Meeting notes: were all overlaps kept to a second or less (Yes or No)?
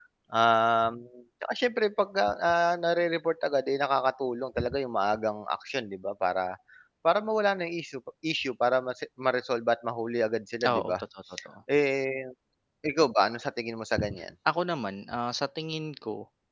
Yes